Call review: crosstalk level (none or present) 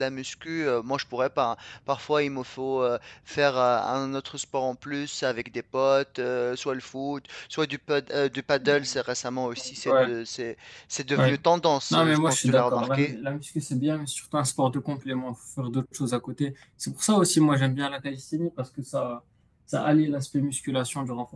present